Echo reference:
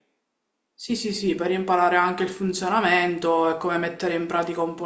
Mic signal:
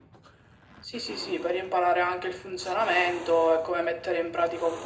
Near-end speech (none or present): none